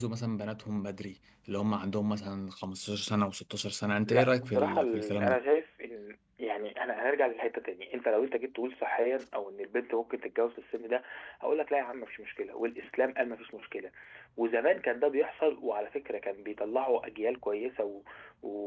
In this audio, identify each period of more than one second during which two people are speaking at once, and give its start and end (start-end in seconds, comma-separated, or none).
4.1-5.4